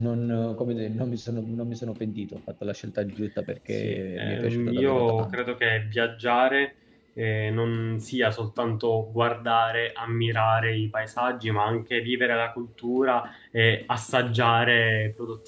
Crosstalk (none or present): present